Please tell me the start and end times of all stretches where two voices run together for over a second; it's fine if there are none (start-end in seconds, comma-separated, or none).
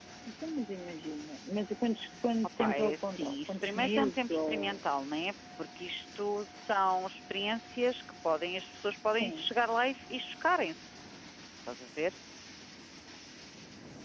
2.6-4.8